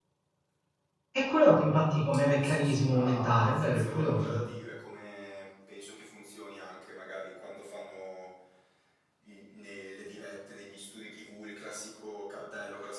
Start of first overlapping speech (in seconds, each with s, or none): 2.2 s